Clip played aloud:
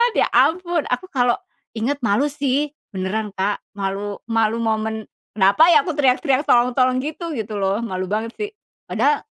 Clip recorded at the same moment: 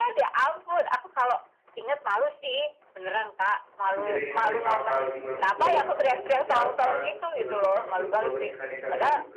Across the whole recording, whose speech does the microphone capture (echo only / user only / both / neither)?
both